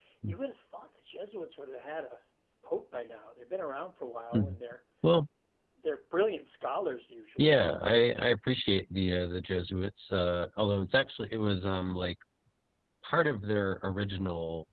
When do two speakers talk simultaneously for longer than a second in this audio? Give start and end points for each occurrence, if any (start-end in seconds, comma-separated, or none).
none